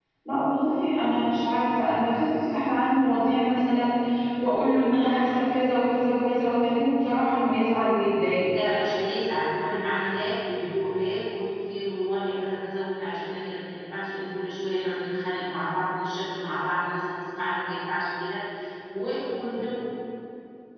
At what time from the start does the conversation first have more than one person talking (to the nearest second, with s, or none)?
none